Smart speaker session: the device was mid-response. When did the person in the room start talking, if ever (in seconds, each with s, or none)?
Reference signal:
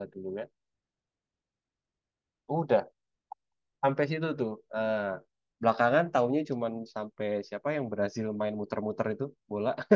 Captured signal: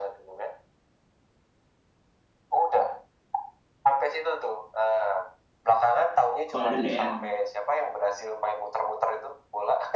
6.4 s